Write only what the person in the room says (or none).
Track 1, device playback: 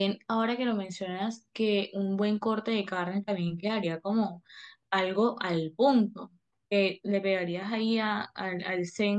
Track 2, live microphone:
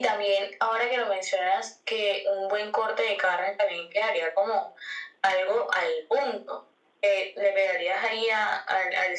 none